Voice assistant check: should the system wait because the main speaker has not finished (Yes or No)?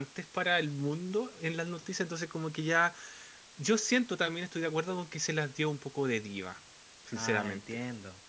No